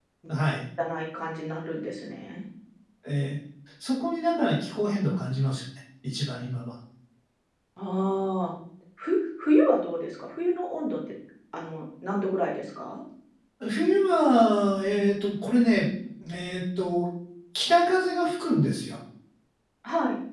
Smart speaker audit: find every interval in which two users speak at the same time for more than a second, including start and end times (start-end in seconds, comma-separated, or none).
none